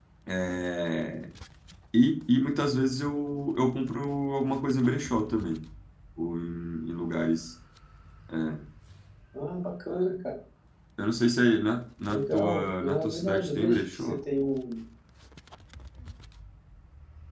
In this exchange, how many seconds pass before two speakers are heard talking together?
12.1 s

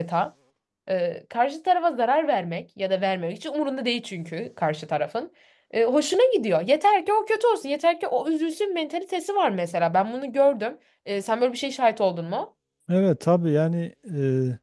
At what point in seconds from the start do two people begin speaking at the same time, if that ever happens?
none

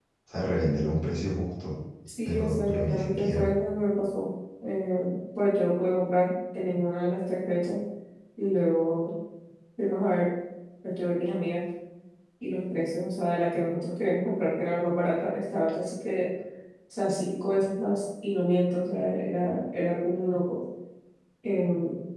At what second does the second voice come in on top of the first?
2.2 s

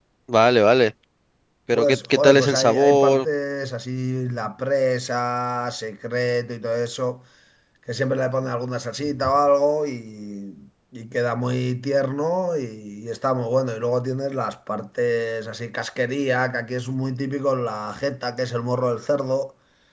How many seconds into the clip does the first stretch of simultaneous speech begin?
1.7 s

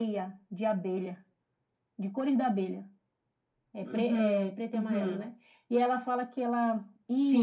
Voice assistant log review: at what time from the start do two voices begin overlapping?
3.8 s

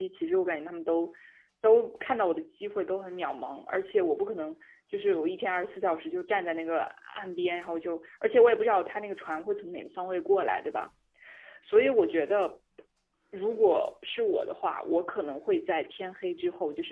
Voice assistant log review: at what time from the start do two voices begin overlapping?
none

